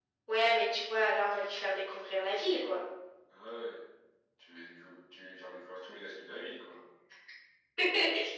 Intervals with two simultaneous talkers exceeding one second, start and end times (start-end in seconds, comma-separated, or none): none